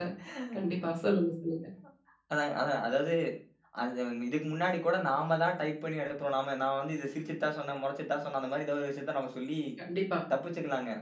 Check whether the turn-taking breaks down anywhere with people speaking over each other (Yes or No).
No